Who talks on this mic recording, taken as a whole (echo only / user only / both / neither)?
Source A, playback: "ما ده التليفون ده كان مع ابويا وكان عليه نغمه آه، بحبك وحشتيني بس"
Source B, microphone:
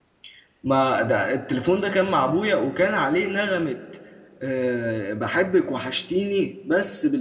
echo only